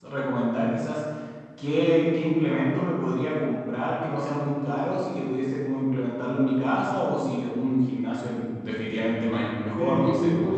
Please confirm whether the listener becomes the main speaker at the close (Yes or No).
Yes